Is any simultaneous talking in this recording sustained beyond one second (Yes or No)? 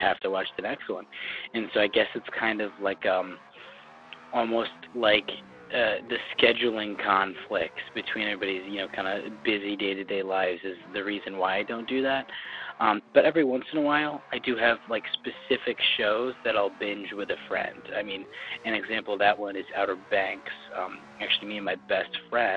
No